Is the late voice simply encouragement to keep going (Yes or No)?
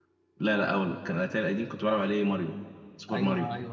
No